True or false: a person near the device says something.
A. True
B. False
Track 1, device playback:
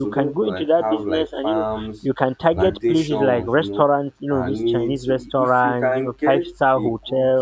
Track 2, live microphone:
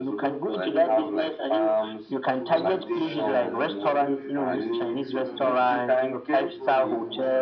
A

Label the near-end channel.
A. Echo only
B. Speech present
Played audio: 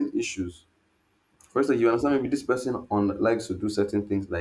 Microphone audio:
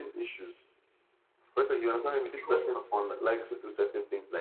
B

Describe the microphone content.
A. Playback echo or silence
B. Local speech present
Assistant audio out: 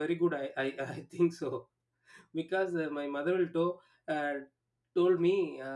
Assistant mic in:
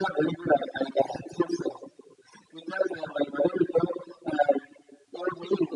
A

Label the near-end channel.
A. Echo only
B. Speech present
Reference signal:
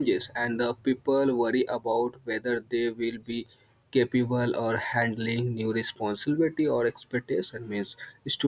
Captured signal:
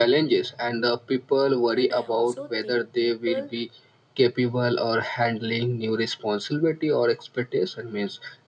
B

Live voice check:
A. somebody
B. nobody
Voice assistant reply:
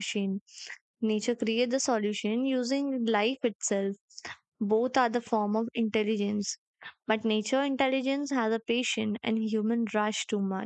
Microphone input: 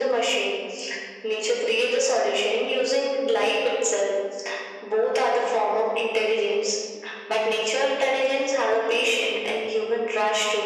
B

